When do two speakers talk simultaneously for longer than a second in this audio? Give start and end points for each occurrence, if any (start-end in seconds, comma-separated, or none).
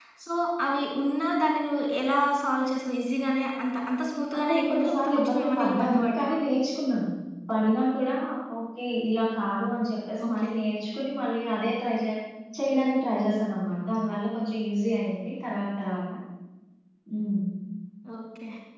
4.4-6.4